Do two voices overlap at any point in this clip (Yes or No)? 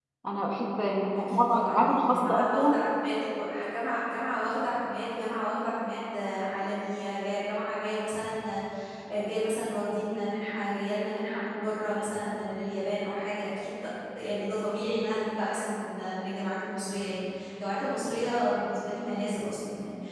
Yes